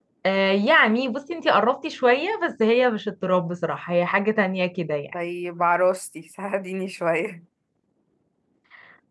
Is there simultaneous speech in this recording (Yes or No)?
No